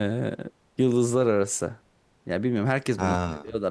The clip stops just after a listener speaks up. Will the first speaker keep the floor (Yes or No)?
Yes